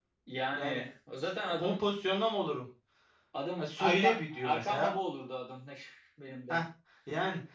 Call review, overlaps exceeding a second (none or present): present